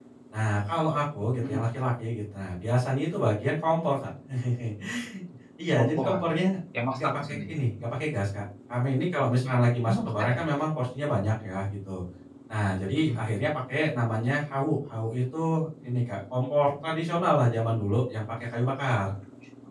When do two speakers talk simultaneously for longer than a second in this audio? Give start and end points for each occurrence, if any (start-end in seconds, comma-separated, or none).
none